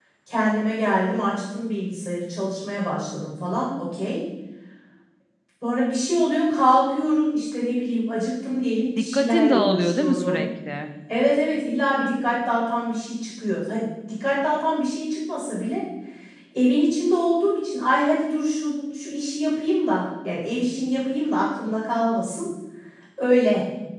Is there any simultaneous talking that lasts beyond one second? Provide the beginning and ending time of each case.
9.0-10.4

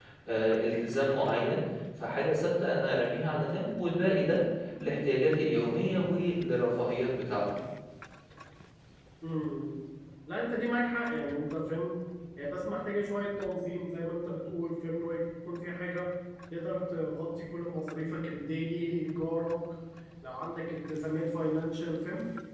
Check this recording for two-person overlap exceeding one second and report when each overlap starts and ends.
none

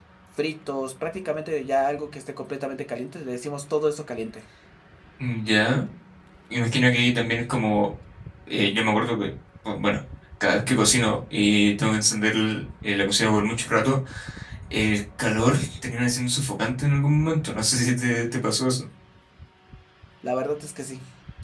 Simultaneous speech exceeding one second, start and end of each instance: none

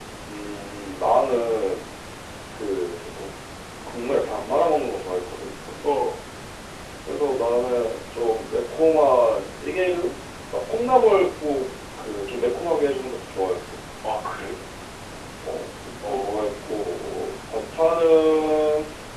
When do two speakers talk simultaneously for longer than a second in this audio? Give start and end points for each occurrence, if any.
none

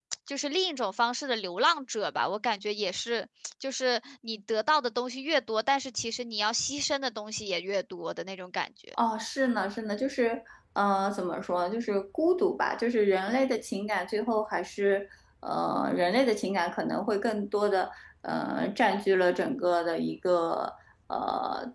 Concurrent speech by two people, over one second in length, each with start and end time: none

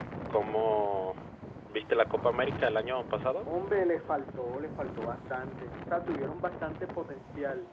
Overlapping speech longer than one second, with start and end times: none

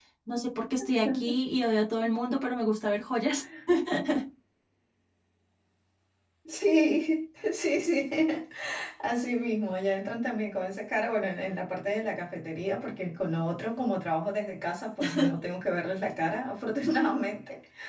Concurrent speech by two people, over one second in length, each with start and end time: none

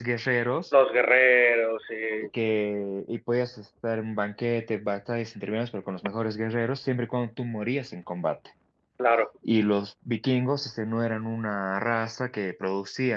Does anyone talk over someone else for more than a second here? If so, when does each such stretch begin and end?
none

